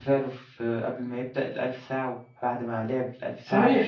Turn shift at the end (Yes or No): Yes